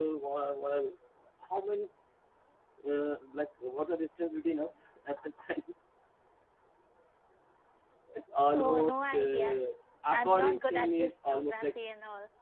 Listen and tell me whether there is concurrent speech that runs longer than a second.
Yes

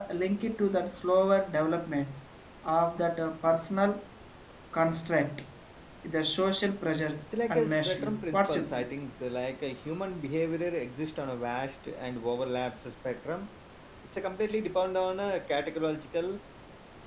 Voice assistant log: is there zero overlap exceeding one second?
No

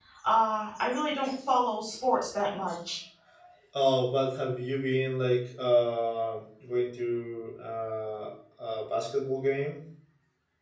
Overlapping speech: No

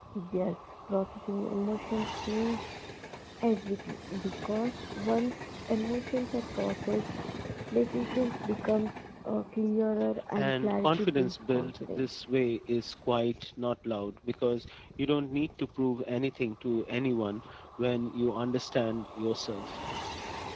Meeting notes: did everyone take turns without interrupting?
No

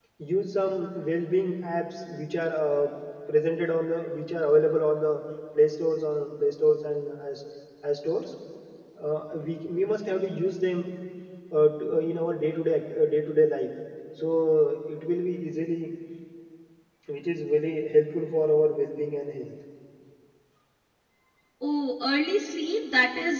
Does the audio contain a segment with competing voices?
No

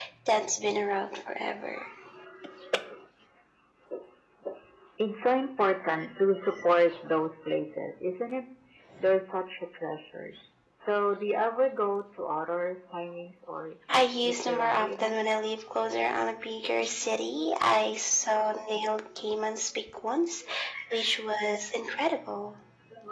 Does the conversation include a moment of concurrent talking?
Yes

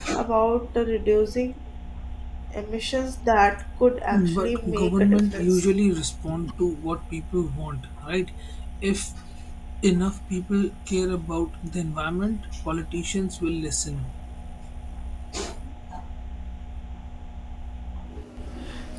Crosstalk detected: Yes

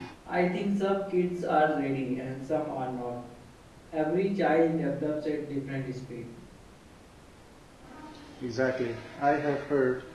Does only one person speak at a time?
Yes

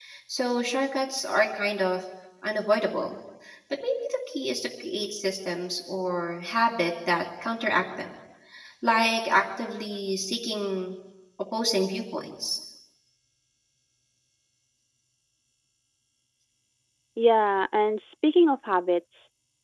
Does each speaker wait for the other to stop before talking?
Yes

